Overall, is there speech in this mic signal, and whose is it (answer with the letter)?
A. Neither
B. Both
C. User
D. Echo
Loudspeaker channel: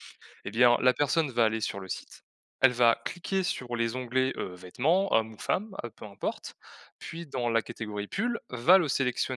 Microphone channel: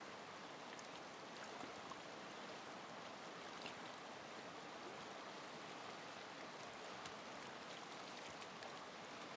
A